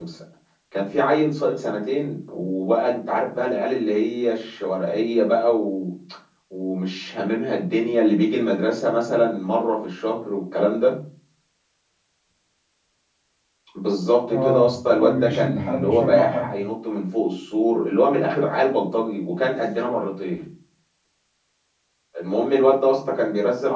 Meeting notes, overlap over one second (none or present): present